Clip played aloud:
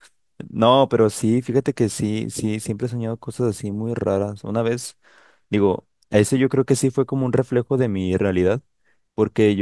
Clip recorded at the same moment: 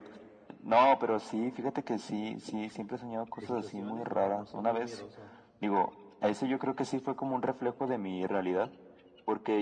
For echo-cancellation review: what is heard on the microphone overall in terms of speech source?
both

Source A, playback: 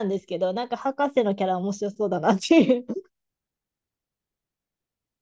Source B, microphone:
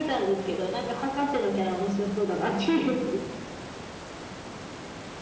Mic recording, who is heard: echo only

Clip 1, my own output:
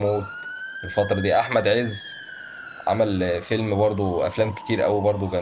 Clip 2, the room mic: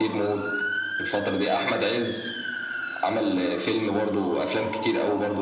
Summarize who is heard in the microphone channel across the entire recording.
echo only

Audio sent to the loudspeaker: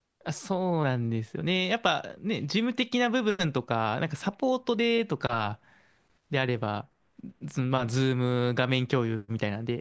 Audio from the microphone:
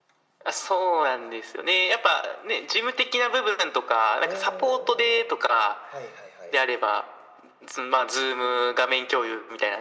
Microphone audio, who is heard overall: both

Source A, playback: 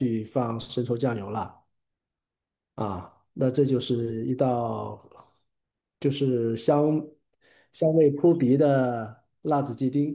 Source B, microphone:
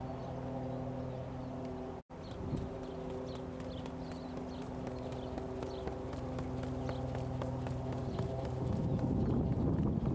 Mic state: neither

